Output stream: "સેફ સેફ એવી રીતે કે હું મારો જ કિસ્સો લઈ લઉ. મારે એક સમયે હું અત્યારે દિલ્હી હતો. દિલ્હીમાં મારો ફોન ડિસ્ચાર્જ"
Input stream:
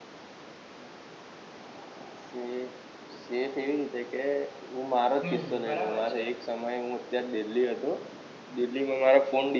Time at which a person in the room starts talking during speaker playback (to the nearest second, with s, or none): 5 s